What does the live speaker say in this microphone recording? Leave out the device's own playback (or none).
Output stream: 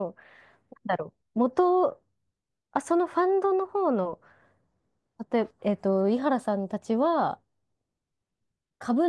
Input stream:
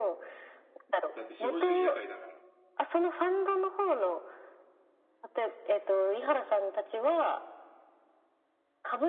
だって資本主義社会だから、